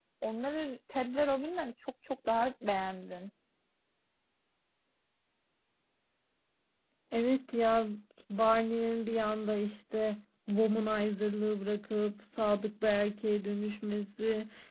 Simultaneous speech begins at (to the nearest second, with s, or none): none